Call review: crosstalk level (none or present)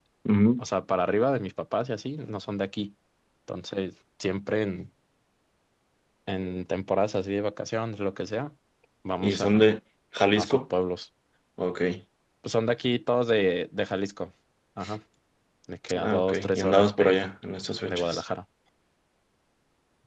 present